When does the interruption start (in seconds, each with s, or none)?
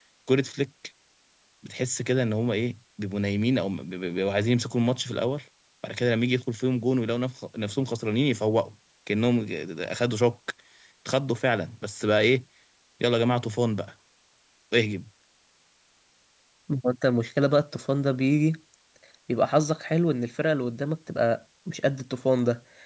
none